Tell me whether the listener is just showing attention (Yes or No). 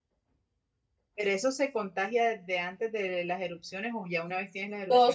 No